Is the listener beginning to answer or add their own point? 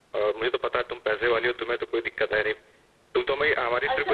Yes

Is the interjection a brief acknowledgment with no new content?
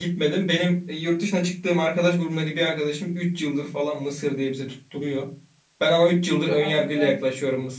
Yes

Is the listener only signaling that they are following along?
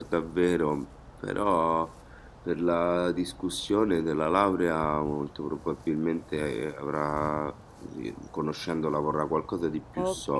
No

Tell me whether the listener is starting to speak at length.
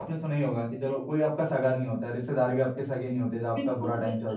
Yes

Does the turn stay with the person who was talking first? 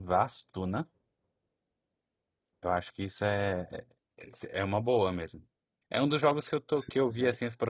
Yes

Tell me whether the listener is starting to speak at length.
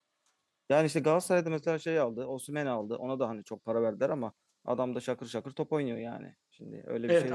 Yes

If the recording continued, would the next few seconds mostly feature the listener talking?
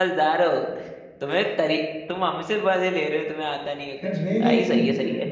Yes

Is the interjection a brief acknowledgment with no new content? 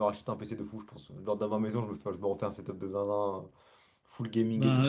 Yes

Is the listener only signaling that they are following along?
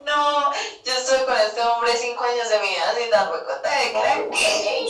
No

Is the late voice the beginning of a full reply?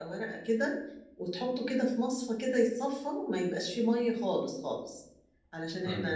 No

